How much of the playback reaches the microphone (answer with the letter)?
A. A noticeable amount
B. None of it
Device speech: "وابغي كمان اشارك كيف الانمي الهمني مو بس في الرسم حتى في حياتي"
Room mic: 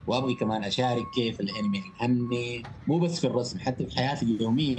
A